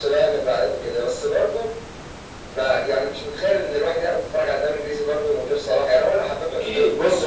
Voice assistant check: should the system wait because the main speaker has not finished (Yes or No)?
No